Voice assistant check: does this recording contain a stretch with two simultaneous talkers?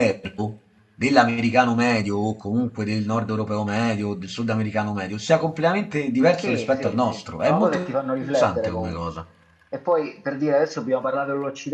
Yes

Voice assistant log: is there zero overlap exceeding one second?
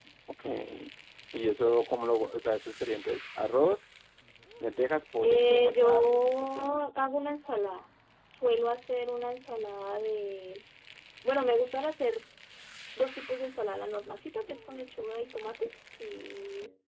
No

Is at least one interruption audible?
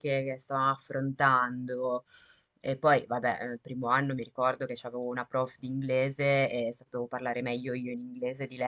No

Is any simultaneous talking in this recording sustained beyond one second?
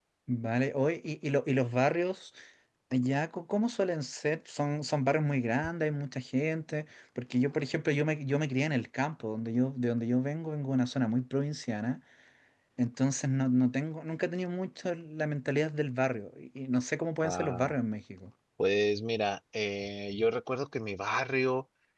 No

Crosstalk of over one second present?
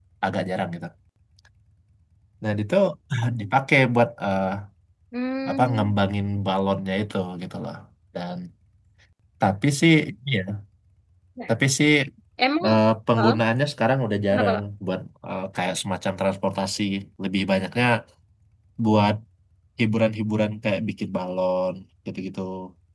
No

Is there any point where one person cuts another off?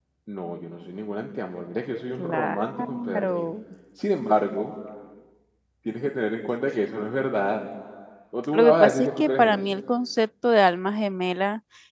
Yes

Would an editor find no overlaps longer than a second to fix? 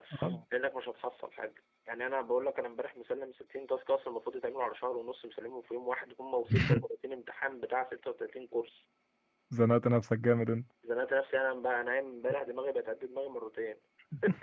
Yes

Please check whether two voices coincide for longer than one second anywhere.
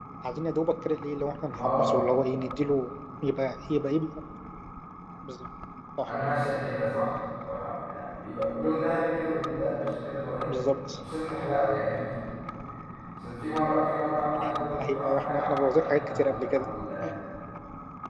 Yes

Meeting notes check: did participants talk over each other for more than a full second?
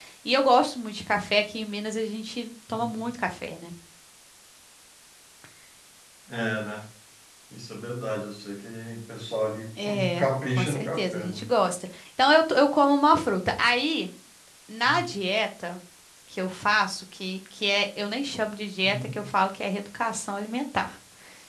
Yes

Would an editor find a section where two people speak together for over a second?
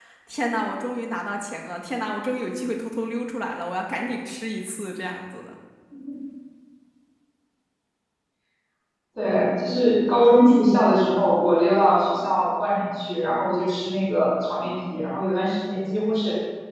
No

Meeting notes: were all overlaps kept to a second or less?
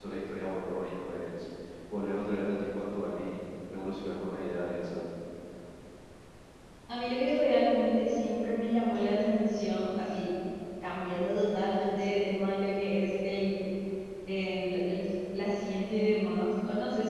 Yes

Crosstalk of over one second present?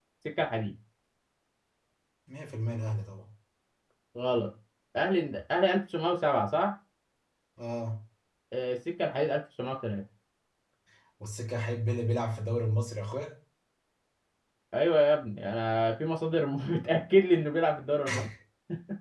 No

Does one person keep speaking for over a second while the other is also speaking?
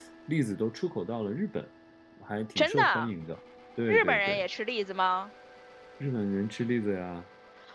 No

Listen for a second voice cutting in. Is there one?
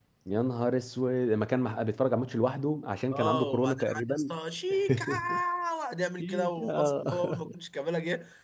Yes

